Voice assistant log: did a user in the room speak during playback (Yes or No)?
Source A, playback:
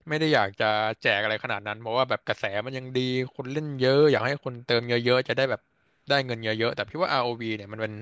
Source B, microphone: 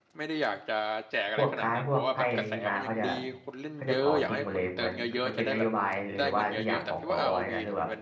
Yes